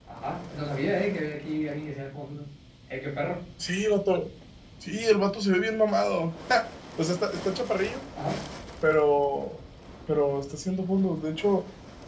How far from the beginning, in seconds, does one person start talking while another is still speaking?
none

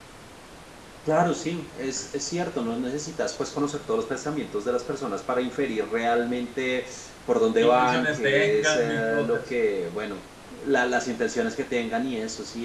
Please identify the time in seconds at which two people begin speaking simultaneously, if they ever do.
7.6 s

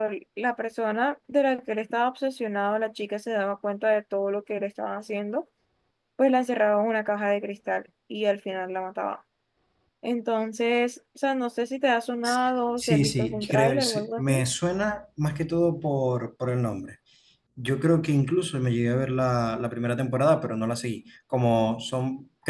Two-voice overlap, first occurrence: 12.8 s

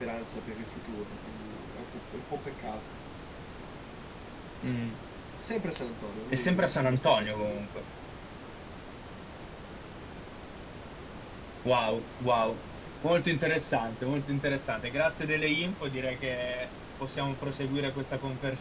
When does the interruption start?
6.3 s

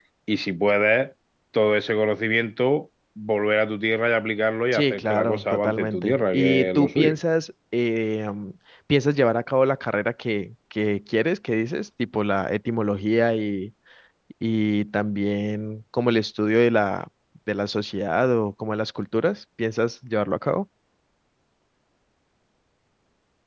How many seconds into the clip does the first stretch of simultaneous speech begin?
4.7 s

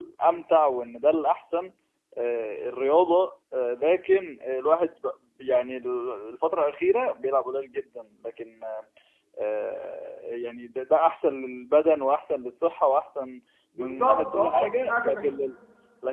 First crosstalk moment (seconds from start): 13.8 s

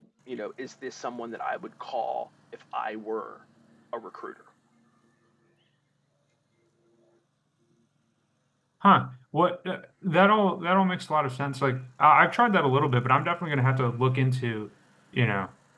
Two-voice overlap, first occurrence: none

